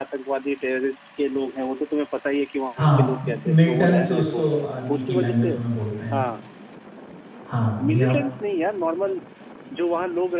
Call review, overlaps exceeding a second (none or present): present